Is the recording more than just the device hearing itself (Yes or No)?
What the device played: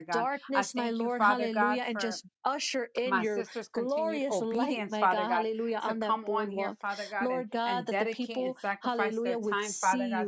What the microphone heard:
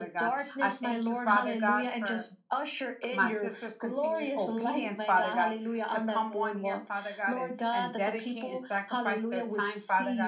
No